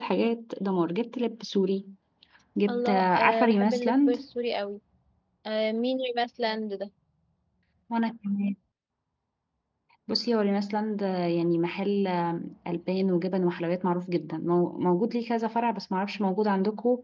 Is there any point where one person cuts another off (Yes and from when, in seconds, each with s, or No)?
Yes, from 2.7 s